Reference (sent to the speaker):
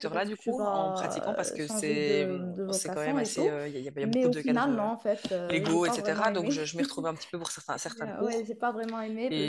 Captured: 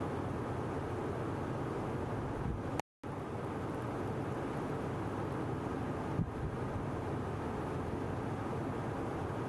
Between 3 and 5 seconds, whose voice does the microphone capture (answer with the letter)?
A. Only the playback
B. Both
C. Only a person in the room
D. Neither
D